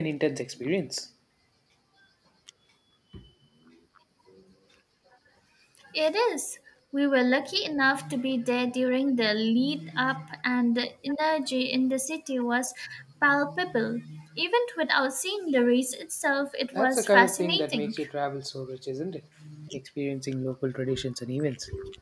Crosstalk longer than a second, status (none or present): present